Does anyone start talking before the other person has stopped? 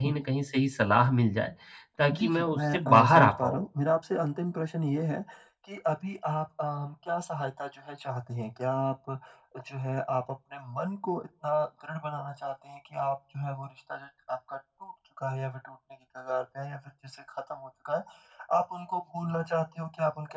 Yes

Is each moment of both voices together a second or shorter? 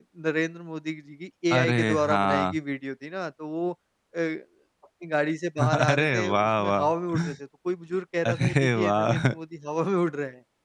No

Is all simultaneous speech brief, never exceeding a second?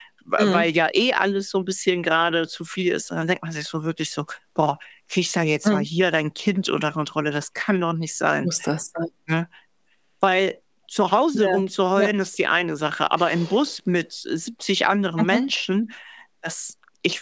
Yes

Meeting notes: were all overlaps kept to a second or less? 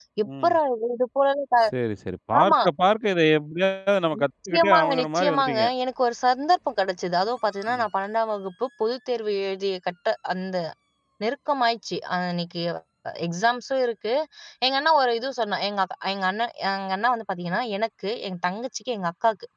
No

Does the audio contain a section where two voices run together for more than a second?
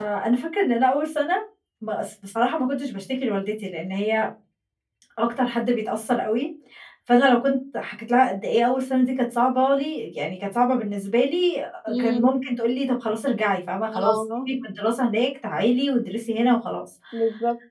No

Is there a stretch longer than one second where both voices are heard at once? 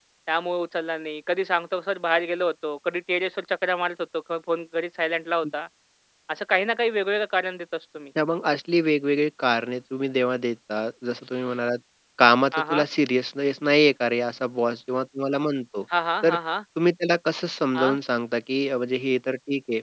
No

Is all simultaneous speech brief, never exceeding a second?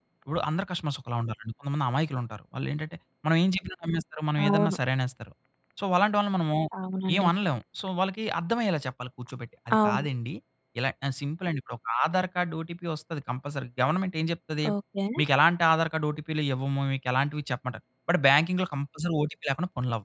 Yes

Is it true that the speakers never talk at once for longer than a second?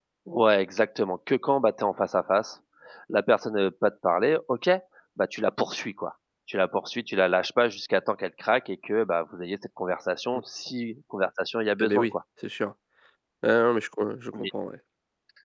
Yes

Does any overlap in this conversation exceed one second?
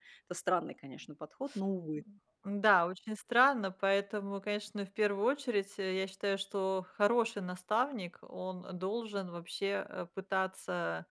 No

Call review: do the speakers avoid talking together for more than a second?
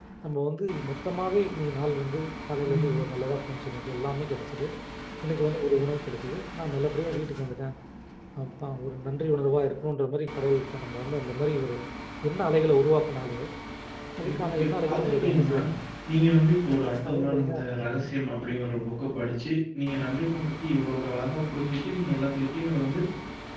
No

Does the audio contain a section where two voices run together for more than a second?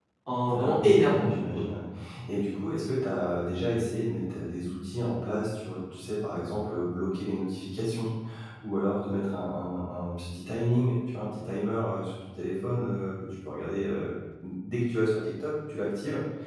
Yes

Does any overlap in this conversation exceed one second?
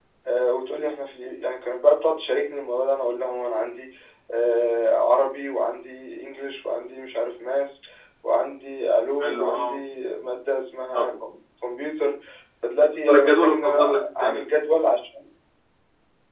Yes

